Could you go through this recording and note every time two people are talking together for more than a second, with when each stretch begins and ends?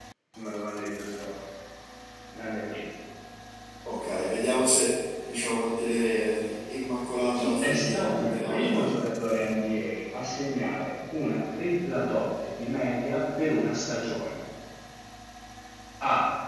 7.3-8.7

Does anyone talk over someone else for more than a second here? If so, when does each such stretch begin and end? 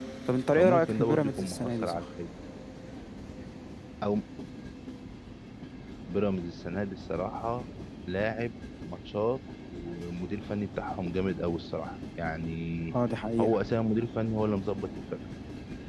0.6-2.0

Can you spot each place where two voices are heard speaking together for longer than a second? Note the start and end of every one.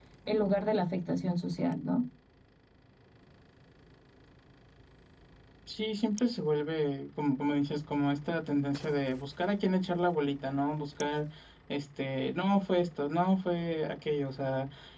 none

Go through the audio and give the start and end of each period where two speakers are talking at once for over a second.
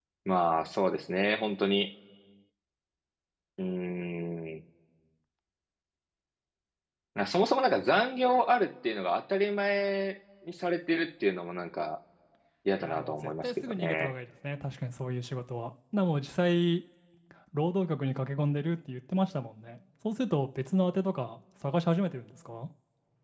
12.8-14.1

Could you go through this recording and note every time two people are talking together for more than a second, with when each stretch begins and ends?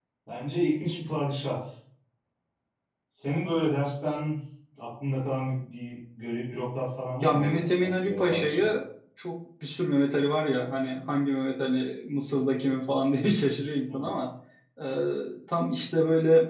7.2-8.7

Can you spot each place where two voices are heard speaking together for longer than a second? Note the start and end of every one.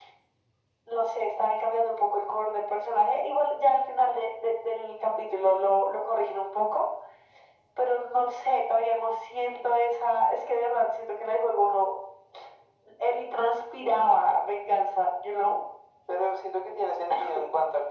none

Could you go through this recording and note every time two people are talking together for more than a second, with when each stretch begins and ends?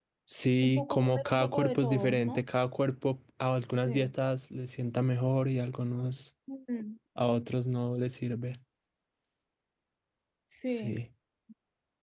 0.6-2.4

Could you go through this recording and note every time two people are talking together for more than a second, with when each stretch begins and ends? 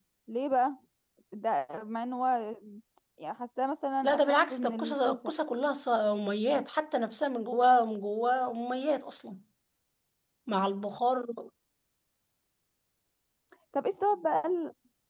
4.0-5.3

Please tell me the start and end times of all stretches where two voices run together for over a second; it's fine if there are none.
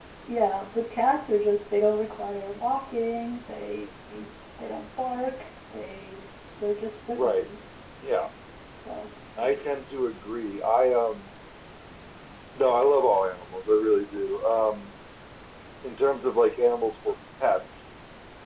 none

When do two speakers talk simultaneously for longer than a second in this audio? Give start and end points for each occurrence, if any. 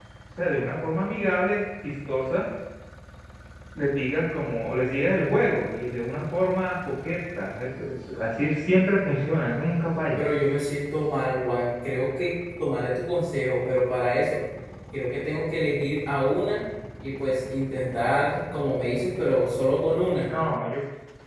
none

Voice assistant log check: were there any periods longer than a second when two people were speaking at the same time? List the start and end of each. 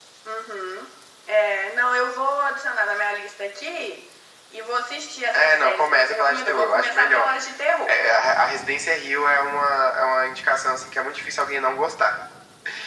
5.3-7.3

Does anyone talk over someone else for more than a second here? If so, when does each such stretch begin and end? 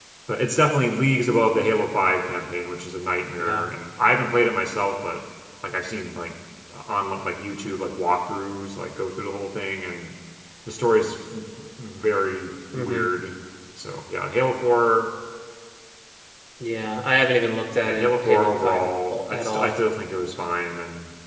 17.8-19.8

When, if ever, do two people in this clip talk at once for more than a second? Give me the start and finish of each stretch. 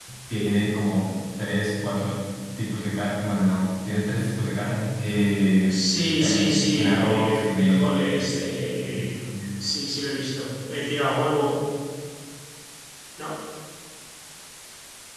6.2-8.2

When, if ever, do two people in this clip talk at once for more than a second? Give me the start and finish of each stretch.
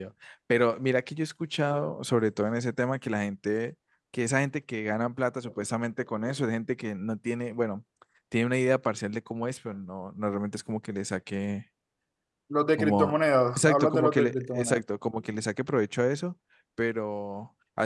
13.6-14.8

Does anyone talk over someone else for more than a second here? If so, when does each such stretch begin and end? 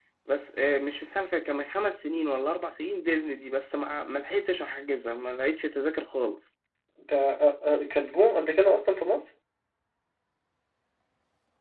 none

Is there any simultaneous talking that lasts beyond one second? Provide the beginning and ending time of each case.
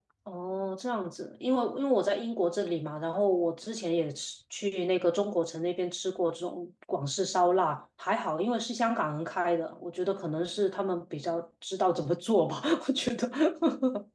none

